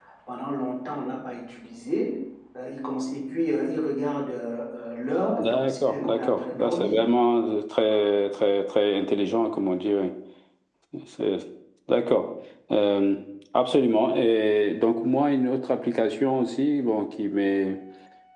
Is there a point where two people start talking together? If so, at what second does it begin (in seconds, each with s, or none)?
5.4 s